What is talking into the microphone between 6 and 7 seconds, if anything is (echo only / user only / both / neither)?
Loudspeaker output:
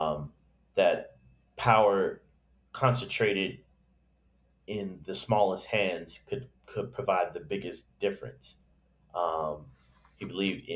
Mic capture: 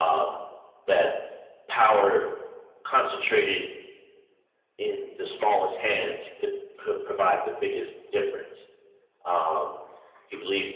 echo only